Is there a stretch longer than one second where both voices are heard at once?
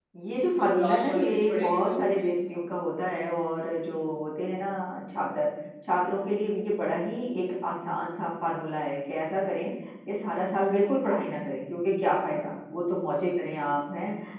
Yes, from 0.6 s

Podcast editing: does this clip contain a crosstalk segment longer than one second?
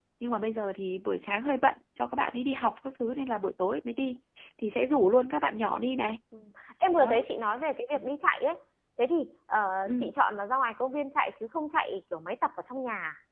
No

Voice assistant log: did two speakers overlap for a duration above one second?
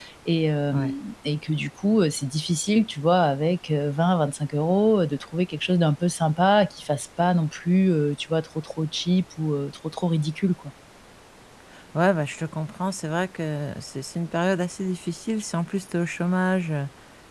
No

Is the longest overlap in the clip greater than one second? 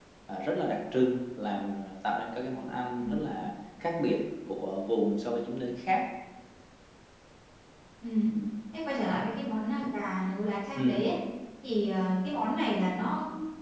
No

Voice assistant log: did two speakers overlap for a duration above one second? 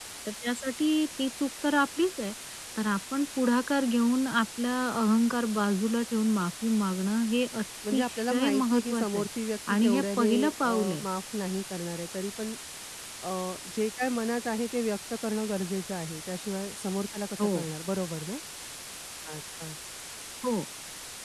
Yes, from 7.9 s

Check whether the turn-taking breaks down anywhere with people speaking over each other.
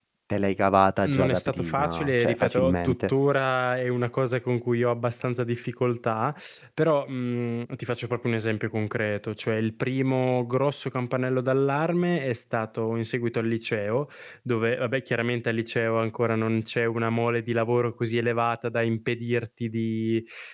Yes, from 1.0 s

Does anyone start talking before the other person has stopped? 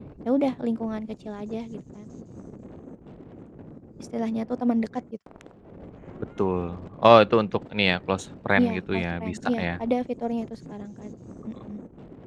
Yes, from 8.6 s

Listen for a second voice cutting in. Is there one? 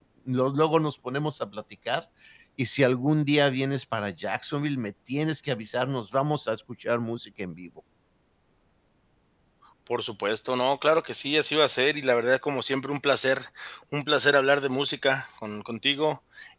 No

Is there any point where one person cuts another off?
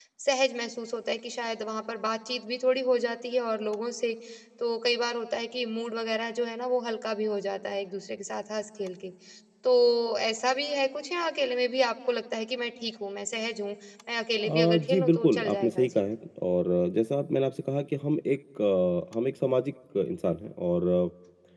Yes, from 14.4 s

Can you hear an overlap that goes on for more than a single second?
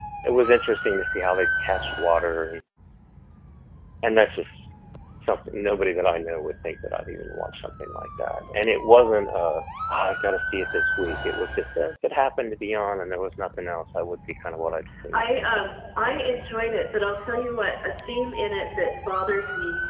No

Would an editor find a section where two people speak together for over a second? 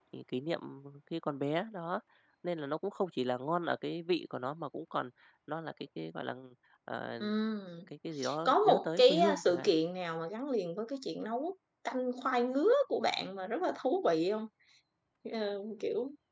Yes, from 8.4 s

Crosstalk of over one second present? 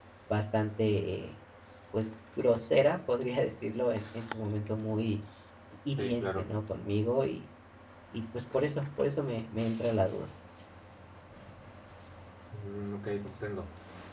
No

